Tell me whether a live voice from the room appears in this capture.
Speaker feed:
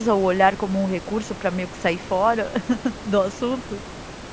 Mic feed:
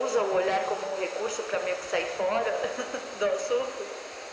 No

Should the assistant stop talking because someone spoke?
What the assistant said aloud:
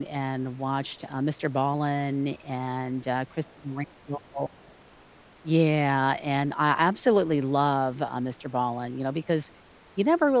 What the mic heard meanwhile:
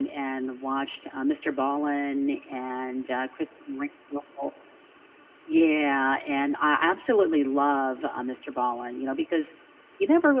No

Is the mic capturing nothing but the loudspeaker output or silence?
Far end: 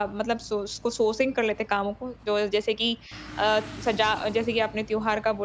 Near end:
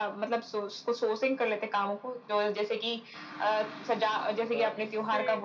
No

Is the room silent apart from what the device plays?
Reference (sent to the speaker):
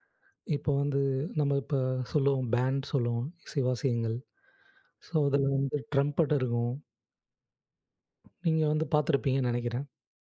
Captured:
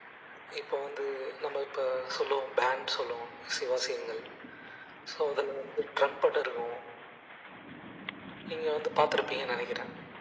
Yes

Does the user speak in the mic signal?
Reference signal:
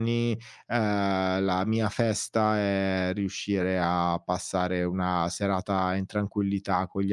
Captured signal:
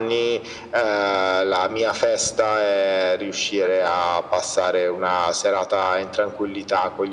No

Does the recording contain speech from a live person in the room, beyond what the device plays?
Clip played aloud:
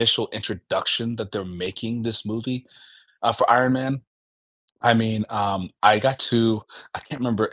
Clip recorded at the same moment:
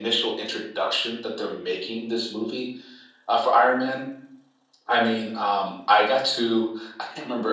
No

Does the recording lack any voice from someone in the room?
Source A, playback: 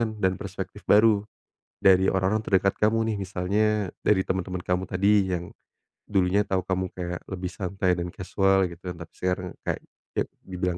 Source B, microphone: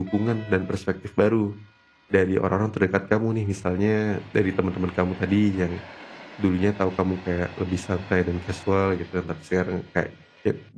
Yes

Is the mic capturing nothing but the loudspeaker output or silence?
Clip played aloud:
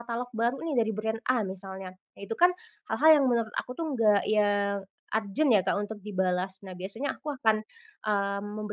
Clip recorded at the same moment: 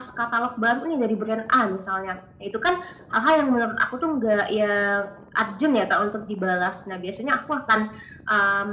Yes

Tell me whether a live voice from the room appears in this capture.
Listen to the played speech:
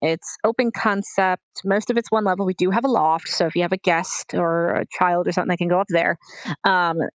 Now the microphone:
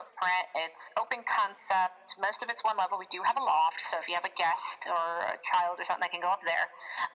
No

